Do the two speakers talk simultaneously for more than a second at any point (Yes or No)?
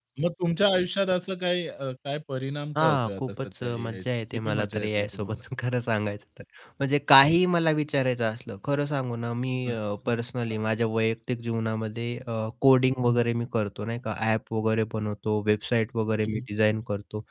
Yes